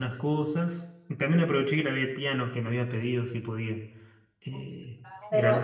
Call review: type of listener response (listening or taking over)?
taking over